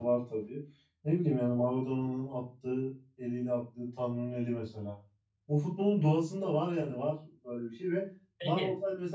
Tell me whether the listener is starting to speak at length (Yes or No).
No